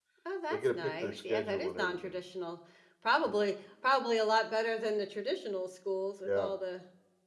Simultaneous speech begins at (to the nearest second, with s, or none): 1 s